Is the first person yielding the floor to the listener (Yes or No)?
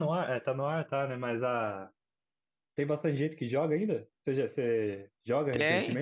Yes